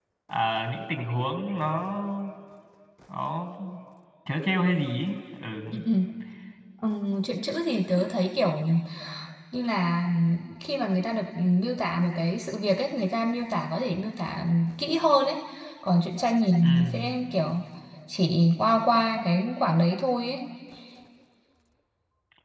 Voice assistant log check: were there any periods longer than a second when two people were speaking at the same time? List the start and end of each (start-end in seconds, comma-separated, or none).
none